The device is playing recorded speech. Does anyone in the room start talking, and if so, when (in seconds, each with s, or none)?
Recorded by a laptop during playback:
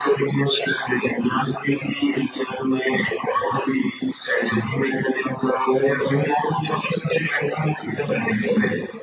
none